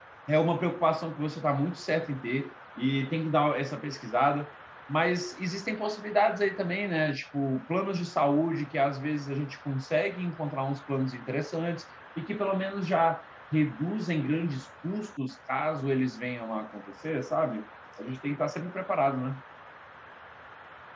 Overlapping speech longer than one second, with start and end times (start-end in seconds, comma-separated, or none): none